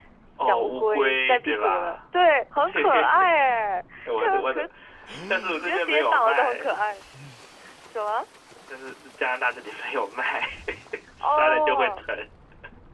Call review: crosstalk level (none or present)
present